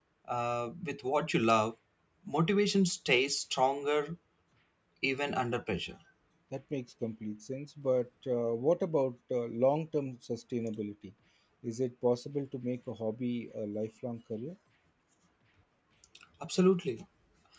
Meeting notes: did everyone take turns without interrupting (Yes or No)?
Yes